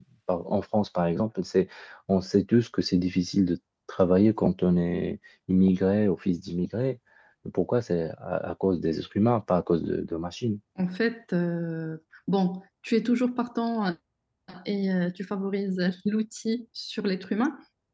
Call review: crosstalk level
none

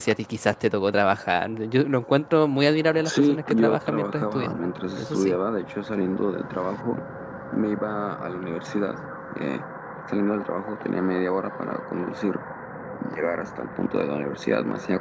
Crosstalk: present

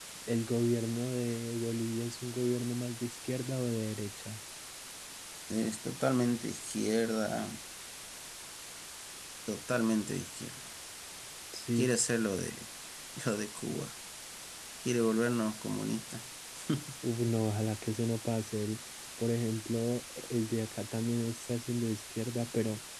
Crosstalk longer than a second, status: none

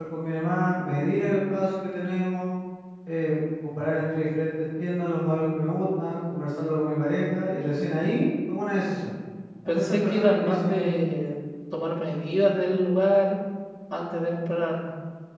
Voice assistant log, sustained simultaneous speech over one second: present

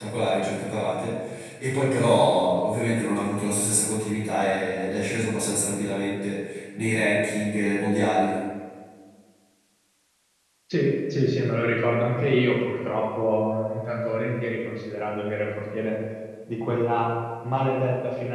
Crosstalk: none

